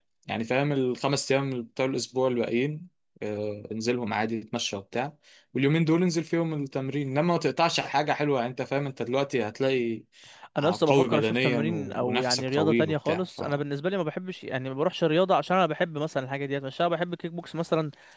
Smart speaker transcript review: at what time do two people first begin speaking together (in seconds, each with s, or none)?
10.9 s